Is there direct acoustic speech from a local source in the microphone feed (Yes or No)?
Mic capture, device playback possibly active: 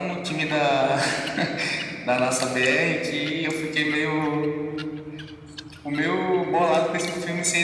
No